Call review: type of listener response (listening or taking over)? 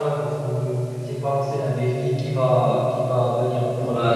taking over